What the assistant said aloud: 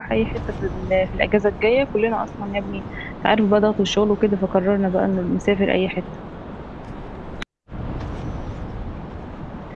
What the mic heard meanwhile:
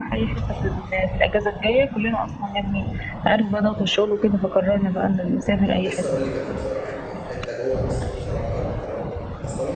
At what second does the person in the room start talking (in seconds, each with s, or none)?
5.7 s